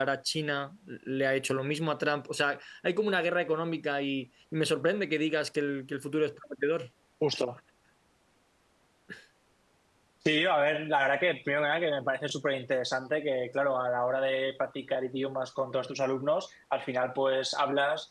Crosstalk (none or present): none